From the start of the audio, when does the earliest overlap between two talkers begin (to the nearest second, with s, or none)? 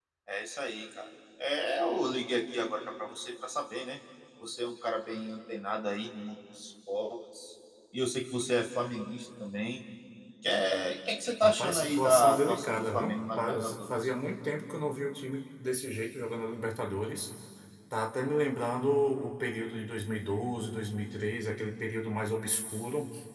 11 s